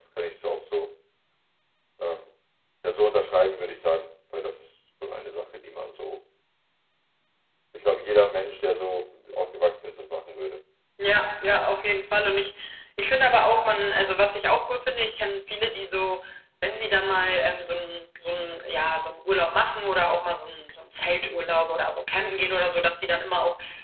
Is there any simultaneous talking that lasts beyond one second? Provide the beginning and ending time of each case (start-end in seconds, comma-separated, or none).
none